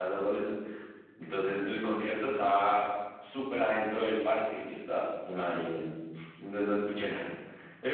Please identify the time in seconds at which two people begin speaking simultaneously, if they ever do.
none

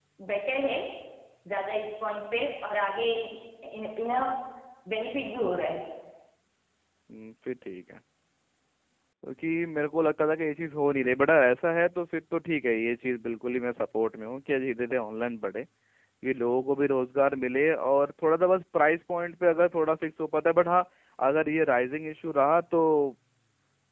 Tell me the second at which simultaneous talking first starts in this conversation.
none

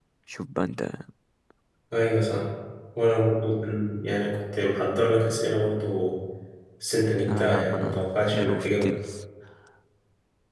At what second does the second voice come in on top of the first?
7.3 s

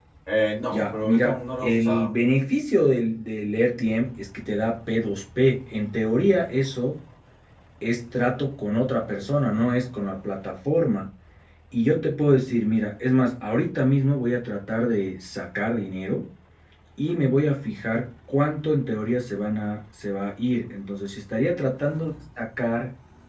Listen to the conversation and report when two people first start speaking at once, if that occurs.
0.7 s

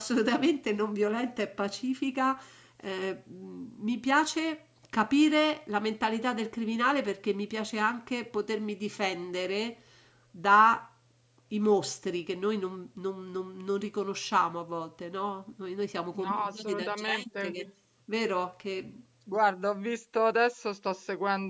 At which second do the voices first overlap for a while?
16.1 s

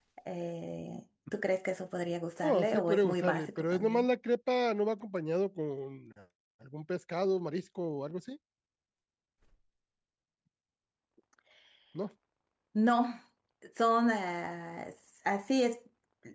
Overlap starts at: 2.4 s

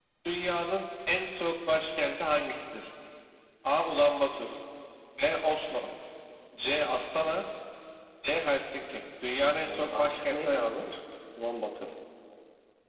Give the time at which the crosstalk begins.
9.6 s

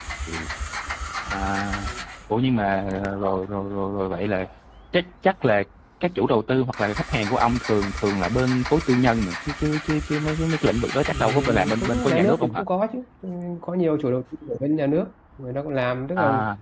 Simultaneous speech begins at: 11.0 s

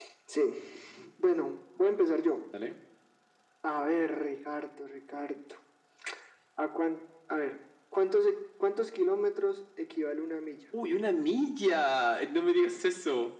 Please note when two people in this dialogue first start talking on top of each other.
none

